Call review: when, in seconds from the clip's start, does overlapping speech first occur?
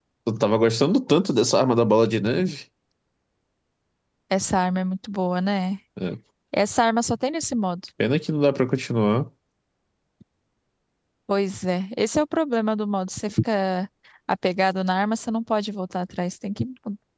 none

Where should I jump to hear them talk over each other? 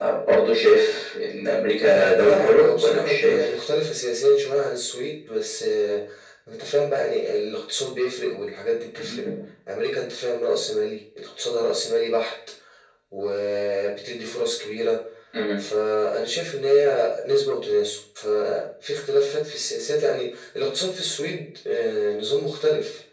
1.8 s

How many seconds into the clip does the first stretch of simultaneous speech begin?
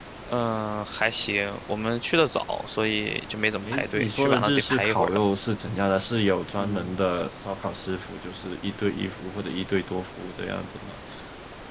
3.6 s

